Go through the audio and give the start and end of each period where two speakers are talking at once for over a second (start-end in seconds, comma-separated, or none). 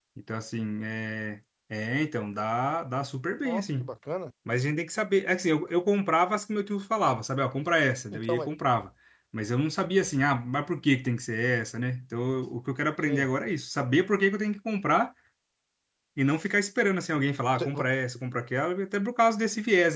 none